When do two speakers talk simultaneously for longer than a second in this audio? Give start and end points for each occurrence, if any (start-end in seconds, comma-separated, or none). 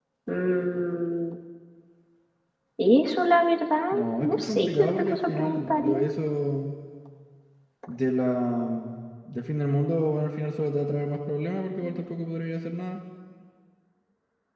3.9-6.0